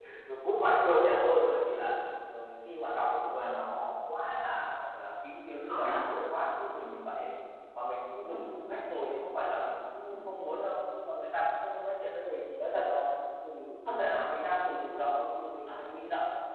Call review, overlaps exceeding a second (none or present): none